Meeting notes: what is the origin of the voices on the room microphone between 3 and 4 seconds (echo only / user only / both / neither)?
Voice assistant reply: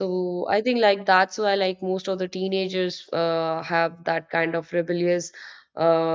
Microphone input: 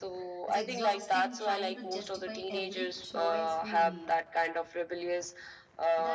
both